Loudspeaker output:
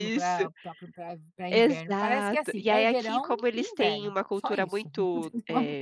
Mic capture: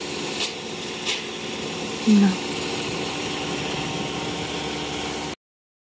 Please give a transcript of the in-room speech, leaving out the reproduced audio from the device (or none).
Não.